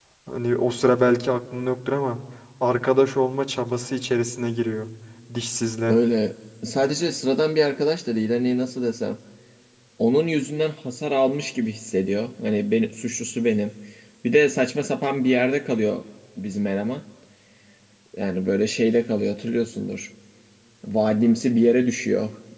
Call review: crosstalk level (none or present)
none